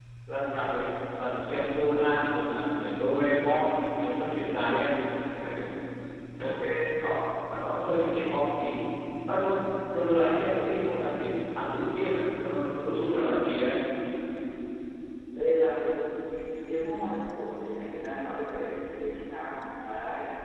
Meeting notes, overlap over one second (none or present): none